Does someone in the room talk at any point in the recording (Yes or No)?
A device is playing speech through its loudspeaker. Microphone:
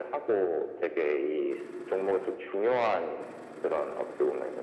No